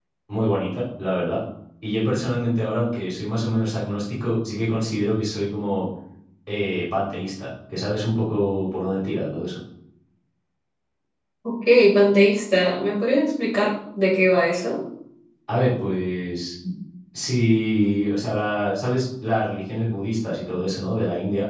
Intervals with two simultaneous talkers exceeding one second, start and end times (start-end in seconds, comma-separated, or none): none